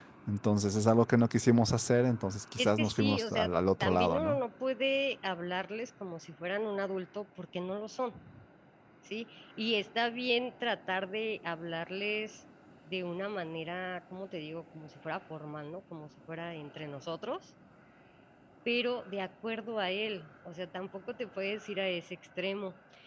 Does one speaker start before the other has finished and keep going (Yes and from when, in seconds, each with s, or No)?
Yes, from 2.6 s